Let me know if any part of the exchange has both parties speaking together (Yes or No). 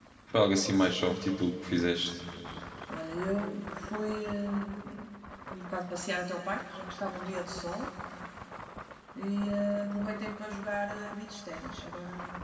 No